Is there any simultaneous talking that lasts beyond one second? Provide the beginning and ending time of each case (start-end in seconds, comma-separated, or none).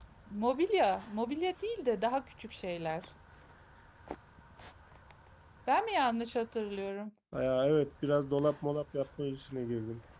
none